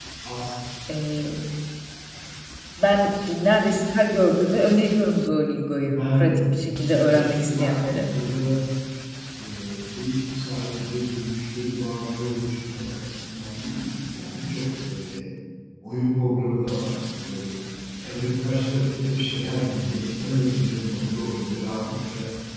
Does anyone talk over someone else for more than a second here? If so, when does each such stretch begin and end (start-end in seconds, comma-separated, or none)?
5.8-8.1